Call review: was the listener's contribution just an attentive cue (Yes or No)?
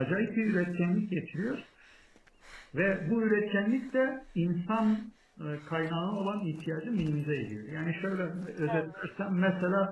Yes